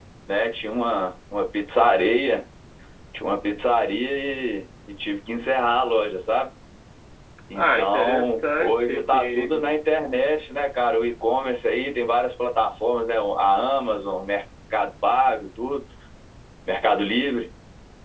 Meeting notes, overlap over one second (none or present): present